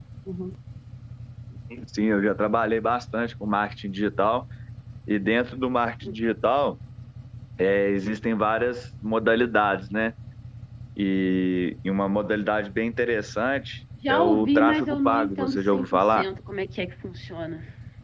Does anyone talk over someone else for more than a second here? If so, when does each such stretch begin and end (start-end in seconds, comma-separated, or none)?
14.1-16.2